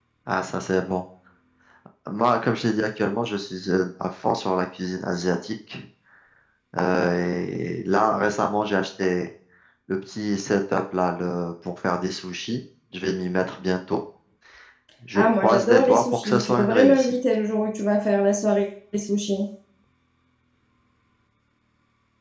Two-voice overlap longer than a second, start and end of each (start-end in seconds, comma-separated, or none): 15.2-17.1